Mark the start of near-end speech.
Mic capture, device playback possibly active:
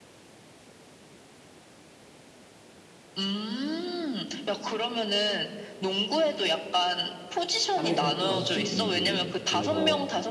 8 s

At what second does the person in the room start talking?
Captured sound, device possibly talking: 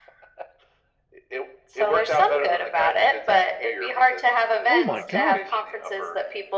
5 s

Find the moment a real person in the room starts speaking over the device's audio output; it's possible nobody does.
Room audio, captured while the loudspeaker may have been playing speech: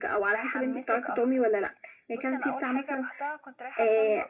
0 s

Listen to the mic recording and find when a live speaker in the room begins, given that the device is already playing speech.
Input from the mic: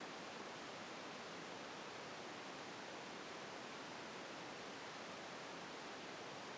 none

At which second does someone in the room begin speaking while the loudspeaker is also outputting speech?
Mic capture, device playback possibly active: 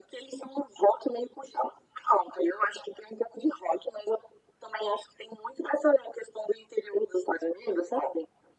none

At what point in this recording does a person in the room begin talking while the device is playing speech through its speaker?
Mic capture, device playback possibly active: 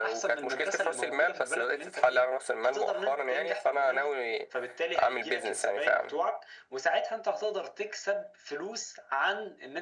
none

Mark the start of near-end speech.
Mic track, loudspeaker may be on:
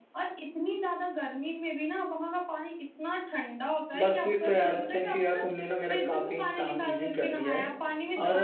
4 s

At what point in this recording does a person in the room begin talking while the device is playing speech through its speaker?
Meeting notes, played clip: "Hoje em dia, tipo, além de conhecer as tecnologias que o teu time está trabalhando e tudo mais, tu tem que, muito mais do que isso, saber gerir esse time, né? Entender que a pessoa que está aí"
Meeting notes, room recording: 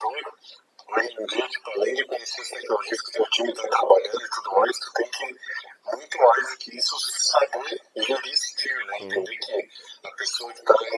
9 s

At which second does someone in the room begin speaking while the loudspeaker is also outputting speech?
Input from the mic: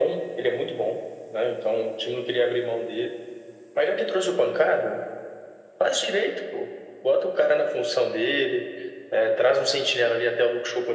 none

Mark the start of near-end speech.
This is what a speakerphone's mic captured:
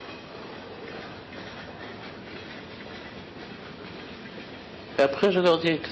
5 s

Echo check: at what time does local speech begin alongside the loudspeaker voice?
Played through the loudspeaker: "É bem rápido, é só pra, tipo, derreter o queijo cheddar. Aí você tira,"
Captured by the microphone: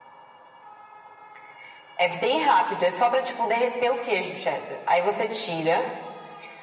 none

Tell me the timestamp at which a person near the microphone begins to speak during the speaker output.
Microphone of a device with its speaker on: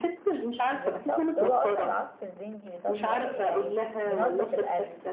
1 s

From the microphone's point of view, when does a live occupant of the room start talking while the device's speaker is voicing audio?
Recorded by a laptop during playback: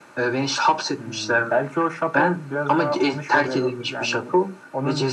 none

